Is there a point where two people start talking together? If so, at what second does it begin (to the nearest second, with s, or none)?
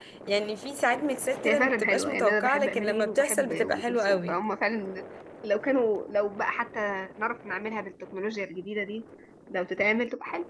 1 s